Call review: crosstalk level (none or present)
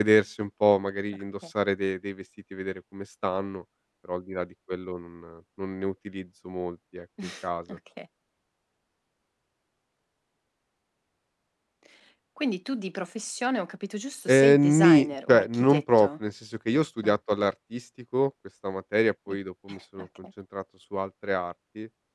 present